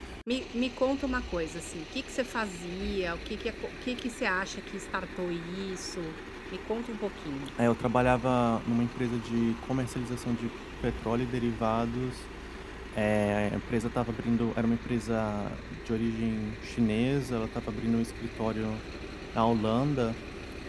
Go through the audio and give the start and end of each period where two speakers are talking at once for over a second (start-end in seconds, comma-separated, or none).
none